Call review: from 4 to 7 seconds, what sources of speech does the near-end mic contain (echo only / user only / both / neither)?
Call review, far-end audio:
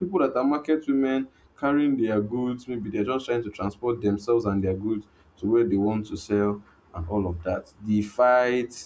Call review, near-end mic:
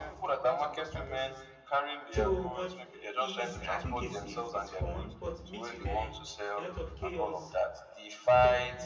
both